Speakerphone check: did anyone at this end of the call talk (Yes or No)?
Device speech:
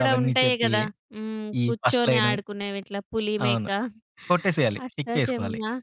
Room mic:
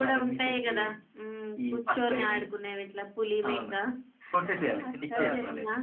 Yes